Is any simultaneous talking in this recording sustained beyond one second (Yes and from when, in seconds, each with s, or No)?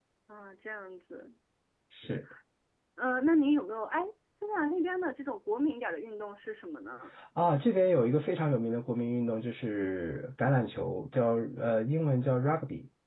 No